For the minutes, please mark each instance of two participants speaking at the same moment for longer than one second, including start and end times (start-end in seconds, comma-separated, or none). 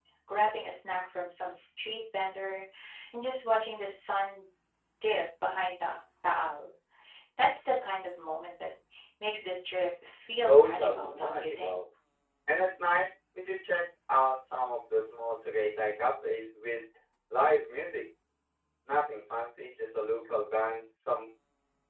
10.5-11.8